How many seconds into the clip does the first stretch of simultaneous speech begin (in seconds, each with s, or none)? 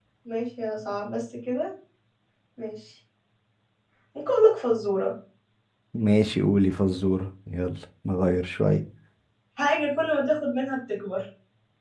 none